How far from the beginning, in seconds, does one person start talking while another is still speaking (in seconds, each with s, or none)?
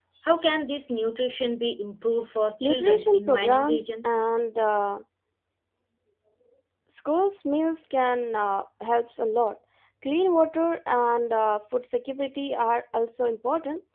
2.6 s